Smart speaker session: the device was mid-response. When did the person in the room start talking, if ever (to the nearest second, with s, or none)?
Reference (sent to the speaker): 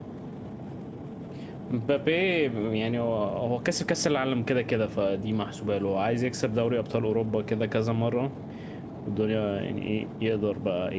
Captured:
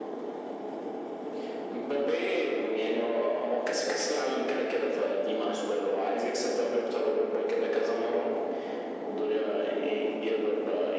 none